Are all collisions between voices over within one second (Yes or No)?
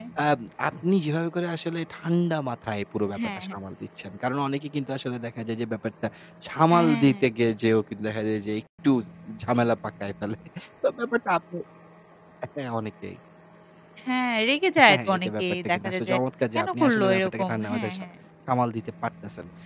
No